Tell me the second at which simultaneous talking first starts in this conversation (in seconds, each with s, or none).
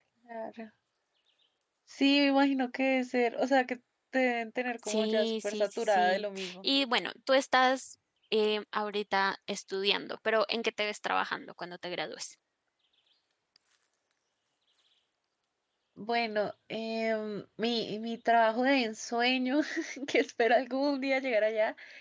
4.8 s